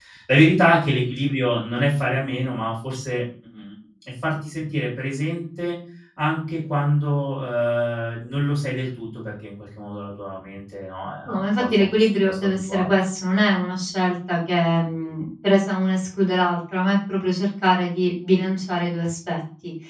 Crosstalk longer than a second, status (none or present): present